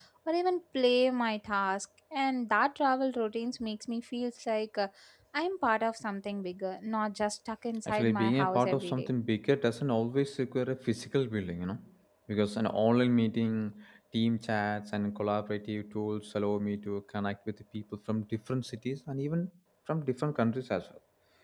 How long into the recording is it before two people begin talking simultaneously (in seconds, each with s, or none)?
7.9 s